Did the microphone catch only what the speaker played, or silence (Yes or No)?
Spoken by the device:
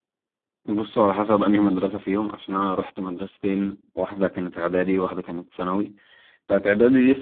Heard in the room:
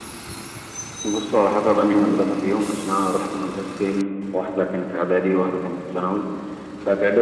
Yes